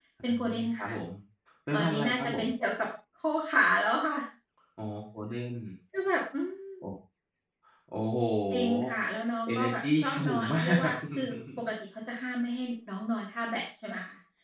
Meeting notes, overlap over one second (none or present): present